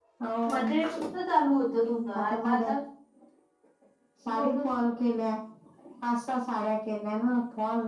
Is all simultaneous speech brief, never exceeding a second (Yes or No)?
Yes